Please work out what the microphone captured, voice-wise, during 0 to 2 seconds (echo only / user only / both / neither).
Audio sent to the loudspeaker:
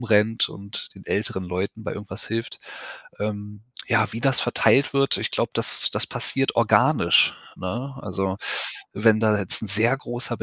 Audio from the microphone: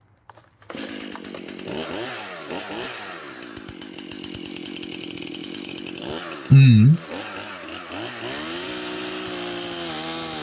neither